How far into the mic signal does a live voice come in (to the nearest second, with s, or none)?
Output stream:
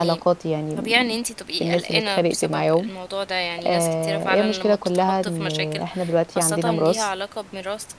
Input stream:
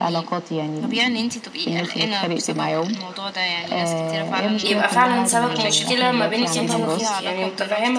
5 s